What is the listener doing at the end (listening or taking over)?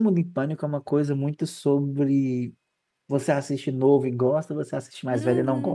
taking over